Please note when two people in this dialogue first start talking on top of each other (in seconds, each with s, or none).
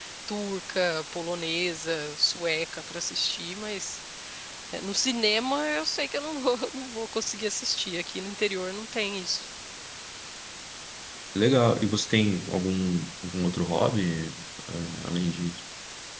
none